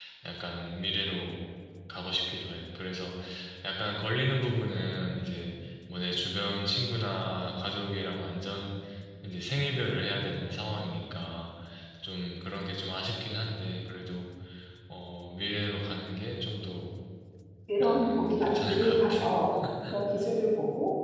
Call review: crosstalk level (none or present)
present